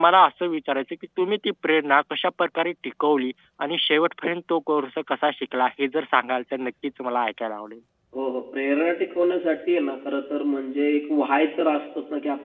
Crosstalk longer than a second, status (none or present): none